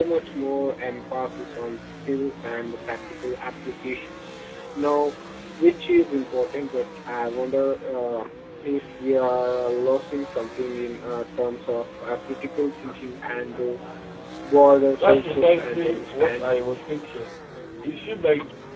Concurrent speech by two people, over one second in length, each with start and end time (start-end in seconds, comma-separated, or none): 15.0-16.6